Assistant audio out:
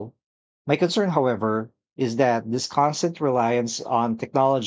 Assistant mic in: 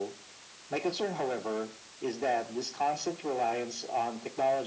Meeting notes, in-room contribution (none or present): none